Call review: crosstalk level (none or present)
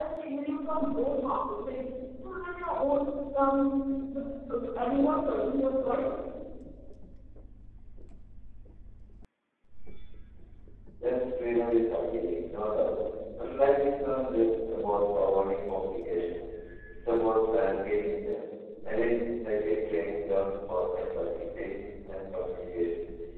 none